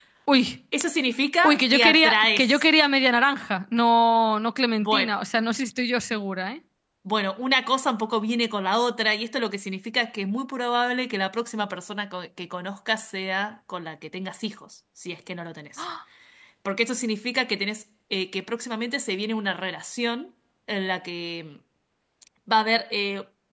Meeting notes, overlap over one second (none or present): present